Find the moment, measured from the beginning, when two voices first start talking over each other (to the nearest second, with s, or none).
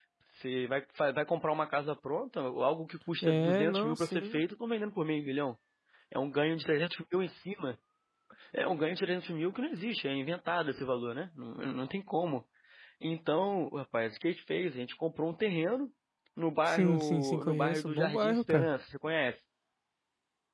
3 s